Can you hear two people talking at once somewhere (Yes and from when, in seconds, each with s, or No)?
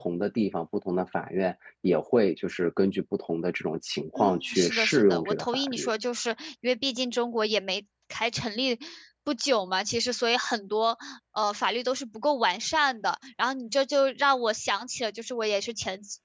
Yes, from 4.2 s